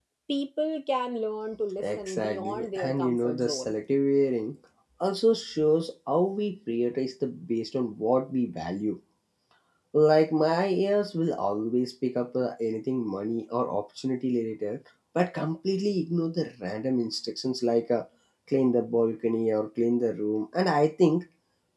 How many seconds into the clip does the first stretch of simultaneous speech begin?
1.8 s

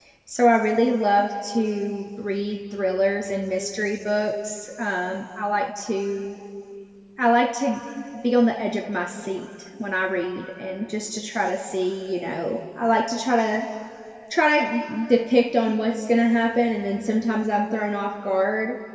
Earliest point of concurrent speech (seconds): none

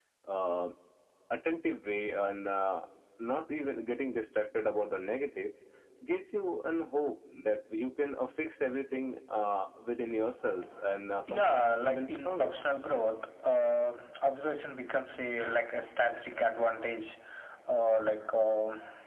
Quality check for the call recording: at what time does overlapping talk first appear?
11.3 s

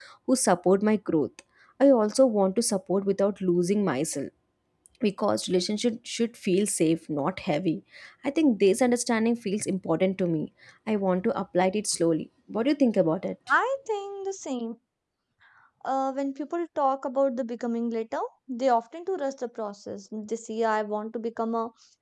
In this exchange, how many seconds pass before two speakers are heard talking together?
none

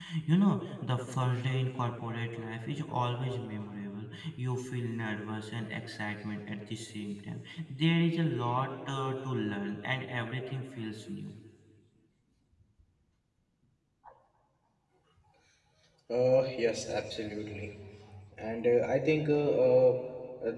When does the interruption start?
none

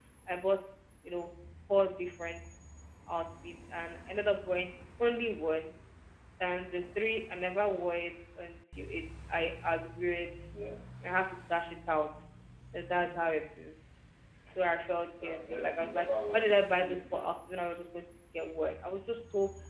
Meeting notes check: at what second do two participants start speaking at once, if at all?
15.2 s

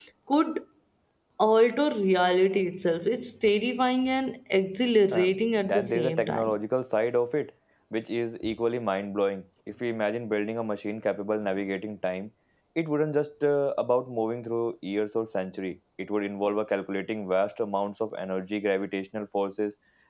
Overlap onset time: 5.1 s

